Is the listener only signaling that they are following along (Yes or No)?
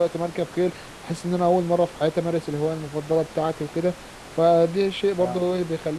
Yes